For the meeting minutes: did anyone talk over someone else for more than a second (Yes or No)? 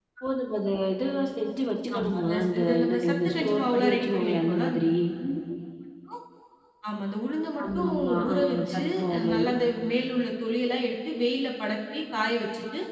Yes